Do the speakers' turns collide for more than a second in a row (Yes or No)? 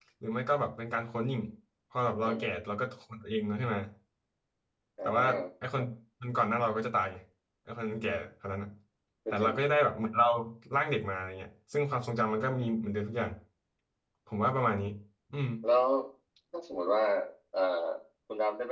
No